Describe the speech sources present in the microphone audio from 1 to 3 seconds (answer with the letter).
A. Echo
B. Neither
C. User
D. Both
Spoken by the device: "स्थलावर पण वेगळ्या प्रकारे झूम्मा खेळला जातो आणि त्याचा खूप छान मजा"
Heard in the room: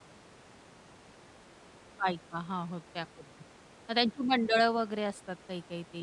C